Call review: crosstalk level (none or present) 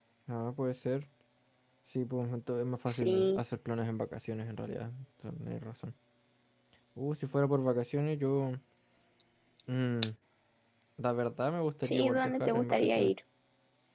present